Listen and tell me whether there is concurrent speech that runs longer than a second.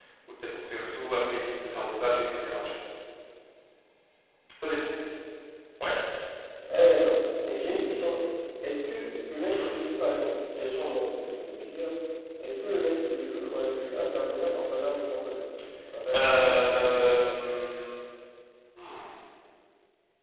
Yes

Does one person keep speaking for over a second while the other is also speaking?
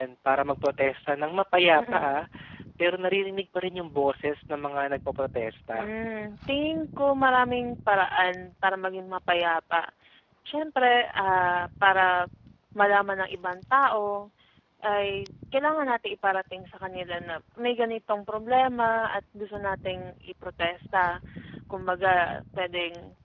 No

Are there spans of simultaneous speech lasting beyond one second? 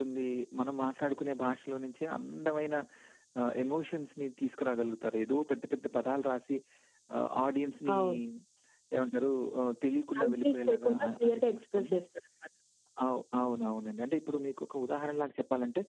Yes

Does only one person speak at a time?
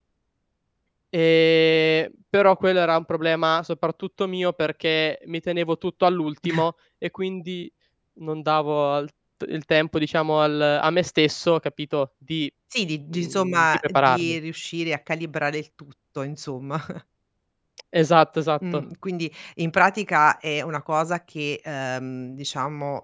No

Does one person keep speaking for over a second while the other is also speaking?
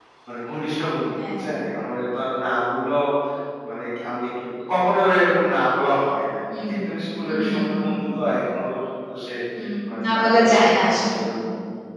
Yes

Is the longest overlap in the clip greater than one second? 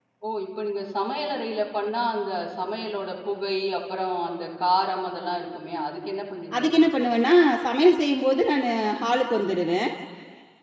No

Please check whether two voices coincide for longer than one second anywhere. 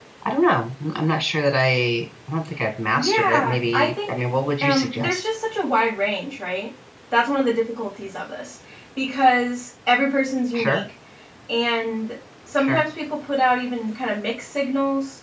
Yes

